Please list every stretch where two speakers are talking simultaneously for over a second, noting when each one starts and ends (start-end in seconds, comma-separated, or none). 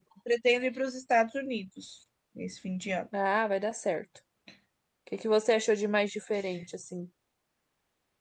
none